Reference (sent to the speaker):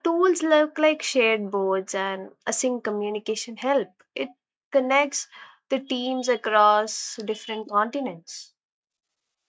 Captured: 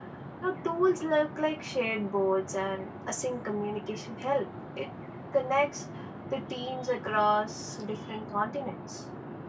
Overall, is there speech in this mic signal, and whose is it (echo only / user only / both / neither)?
echo only